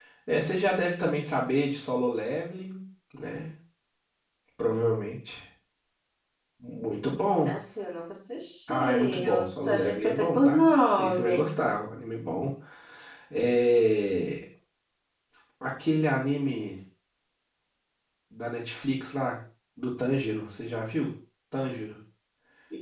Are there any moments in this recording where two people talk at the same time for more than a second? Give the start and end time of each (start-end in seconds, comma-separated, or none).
8.7-11.4